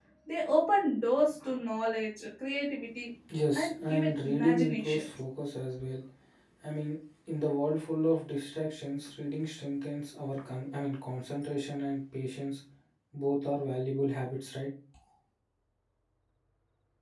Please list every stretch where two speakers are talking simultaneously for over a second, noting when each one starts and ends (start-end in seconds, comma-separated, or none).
3.5-5.0